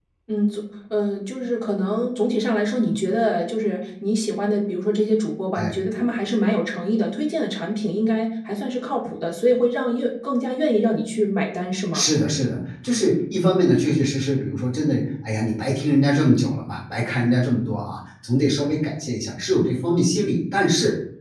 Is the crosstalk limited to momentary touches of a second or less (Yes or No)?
Yes